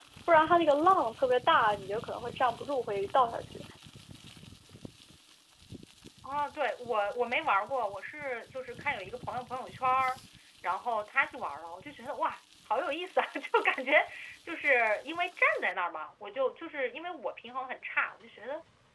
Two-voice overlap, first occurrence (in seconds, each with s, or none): none